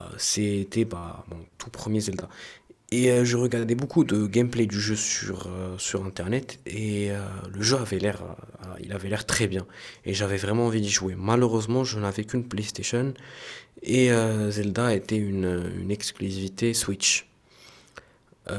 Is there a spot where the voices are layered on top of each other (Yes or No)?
No